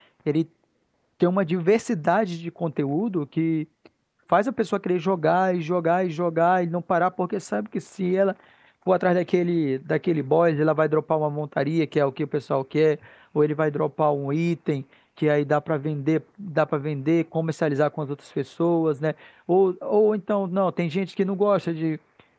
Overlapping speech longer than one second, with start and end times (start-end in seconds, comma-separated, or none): none